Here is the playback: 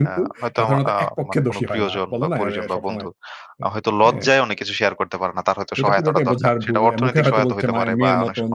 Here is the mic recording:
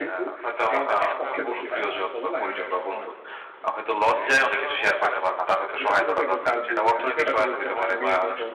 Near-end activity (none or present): present